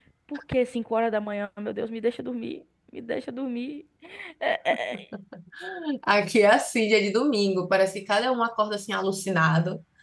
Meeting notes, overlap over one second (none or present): none